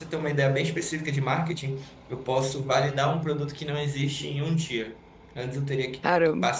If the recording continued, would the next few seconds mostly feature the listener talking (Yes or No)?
No